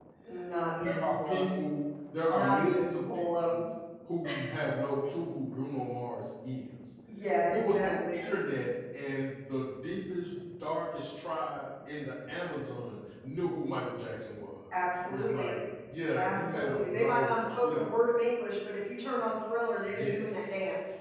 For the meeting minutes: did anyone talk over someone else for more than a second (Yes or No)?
Yes